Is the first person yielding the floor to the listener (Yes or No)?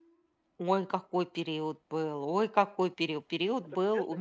No